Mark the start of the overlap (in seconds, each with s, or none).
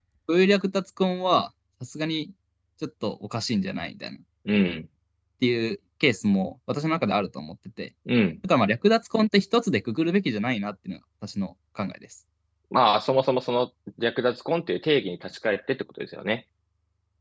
none